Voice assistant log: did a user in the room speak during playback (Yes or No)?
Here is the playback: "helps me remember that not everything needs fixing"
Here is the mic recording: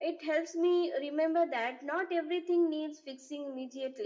No